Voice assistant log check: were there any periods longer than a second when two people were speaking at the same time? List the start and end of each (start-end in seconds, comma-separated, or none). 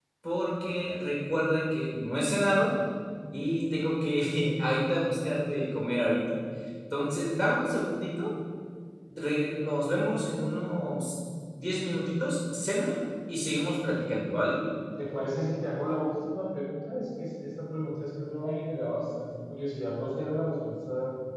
none